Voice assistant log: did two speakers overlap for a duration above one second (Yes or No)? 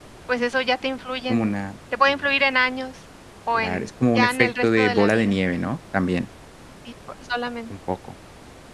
Yes